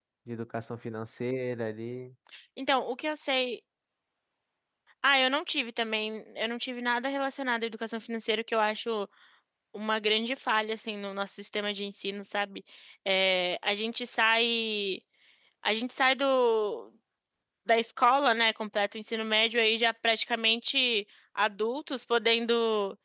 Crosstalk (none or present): none